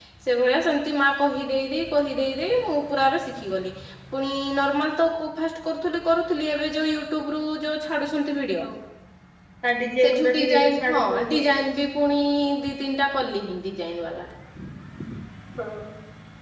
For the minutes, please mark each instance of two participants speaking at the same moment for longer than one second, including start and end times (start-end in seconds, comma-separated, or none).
10.0-11.5